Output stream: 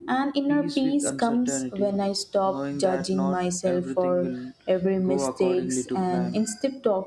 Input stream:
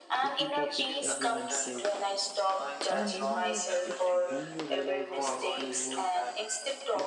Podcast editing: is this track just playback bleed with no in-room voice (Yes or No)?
No